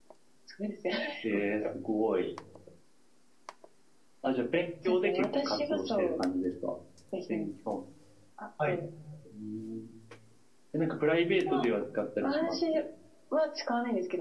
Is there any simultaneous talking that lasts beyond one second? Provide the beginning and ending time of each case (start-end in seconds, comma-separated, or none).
4.8-6.1